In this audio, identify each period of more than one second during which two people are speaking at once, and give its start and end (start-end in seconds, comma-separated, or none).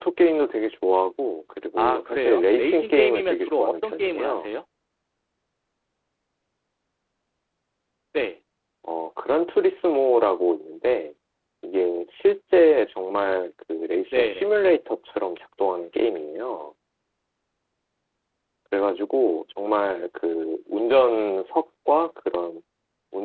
1.8-4.5